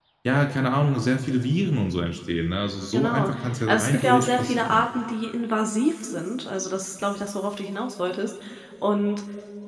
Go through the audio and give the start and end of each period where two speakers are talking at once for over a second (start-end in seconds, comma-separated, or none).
2.9-4.9